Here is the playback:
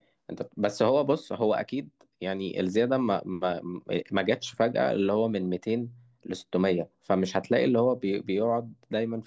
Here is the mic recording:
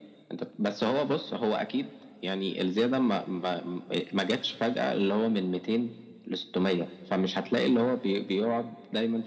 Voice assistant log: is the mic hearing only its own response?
Yes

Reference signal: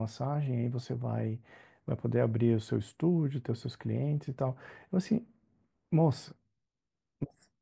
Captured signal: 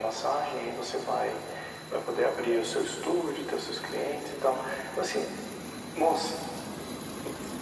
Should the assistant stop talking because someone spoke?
No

